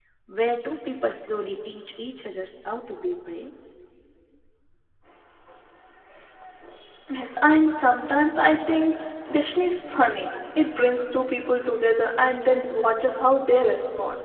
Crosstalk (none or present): none